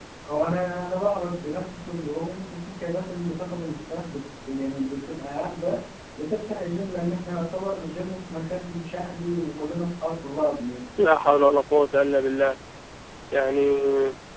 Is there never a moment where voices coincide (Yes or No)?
Yes